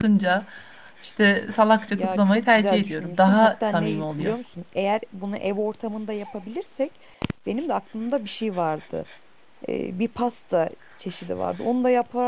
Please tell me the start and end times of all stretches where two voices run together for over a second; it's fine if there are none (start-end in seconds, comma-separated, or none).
1.9-4.3